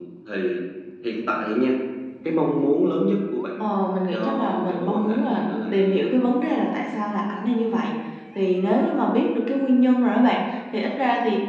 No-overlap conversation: No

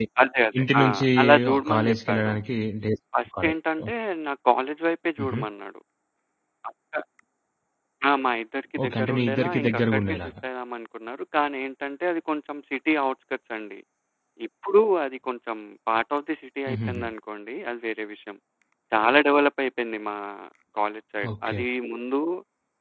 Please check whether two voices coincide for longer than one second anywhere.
Yes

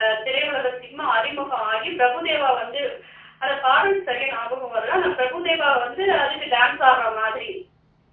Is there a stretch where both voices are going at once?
No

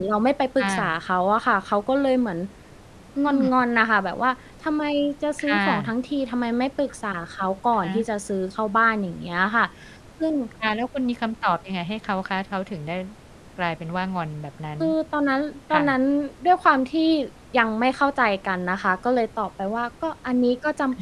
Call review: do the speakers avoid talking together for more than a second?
Yes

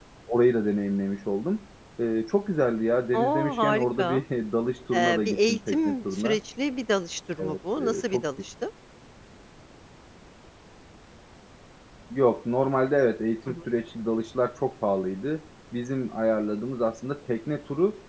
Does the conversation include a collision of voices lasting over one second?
Yes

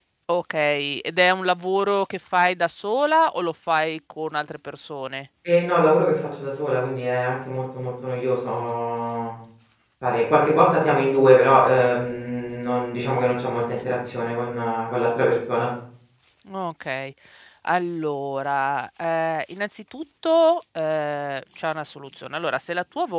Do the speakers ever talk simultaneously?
No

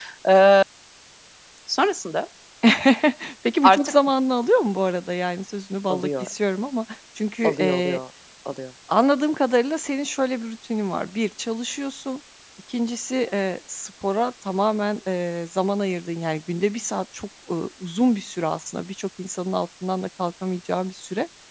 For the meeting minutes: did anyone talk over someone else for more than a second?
No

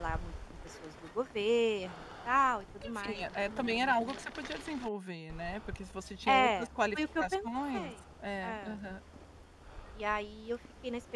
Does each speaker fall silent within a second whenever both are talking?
No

